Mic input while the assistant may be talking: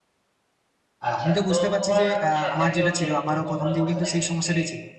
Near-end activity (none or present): present